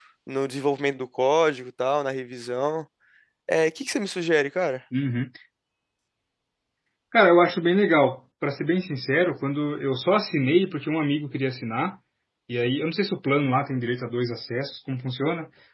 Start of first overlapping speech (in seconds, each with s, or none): none